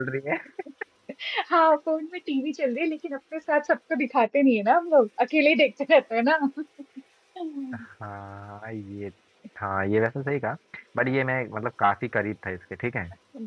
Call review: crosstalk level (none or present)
none